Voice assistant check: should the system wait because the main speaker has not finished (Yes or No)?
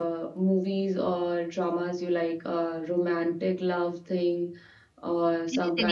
No